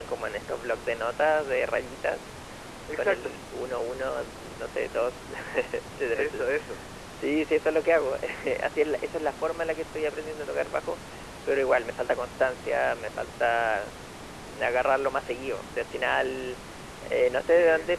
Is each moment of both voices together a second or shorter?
Yes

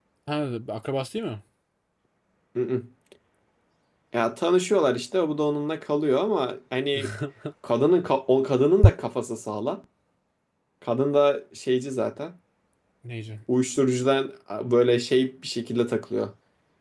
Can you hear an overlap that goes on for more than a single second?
No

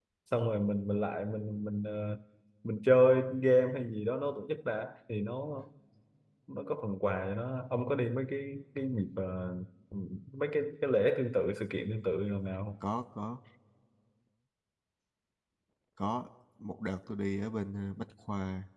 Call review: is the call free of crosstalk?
Yes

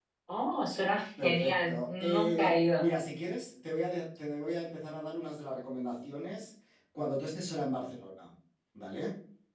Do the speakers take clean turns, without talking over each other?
No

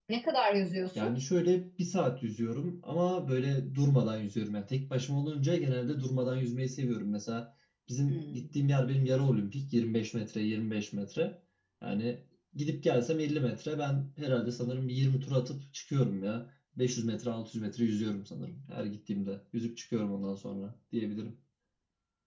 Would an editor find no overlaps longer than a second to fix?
Yes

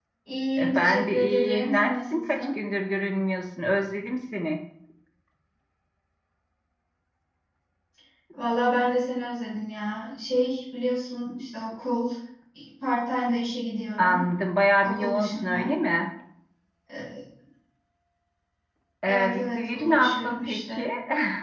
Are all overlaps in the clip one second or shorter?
No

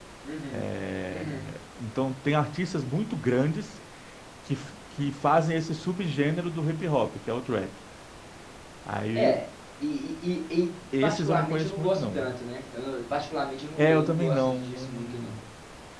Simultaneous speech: Yes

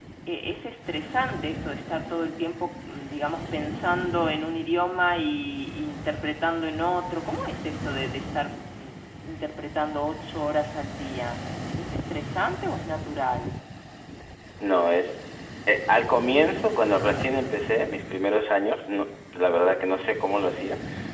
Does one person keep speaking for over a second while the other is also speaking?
No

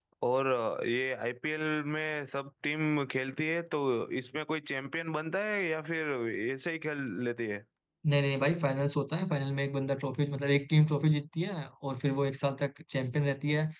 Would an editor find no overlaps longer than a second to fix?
Yes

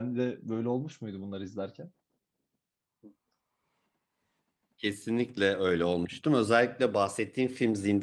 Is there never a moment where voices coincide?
Yes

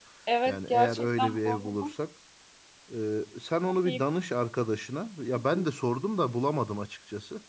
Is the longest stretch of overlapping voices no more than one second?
No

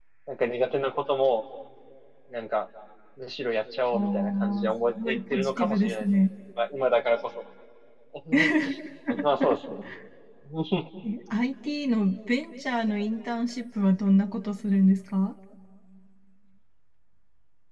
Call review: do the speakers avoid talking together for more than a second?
No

